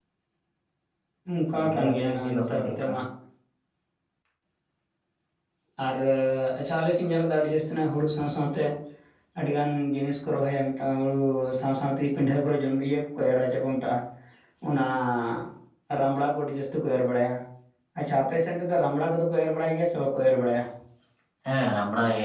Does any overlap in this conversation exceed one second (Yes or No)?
Yes